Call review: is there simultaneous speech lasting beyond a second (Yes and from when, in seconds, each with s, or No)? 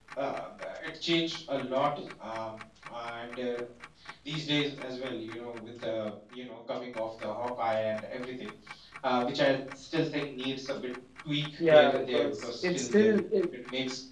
Yes, from 11.6 s